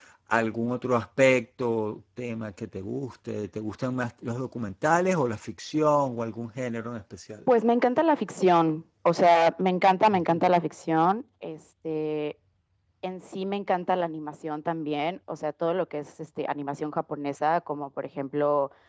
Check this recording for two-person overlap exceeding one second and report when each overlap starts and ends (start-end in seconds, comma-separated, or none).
none